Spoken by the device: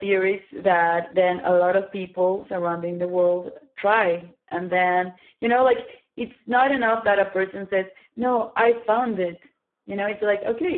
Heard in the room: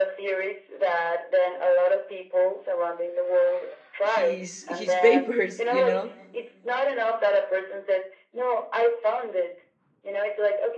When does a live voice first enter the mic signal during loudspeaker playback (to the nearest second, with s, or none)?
4 s